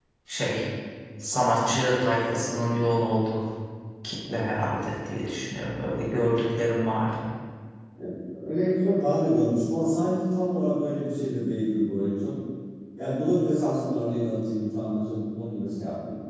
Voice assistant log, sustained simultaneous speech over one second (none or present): none